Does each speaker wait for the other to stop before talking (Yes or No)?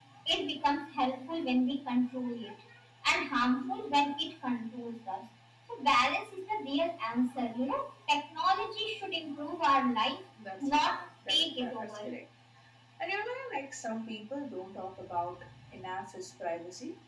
No